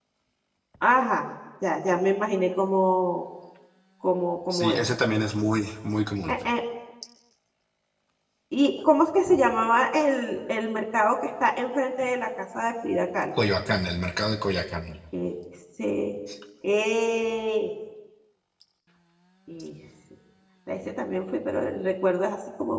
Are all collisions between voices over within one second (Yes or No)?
Yes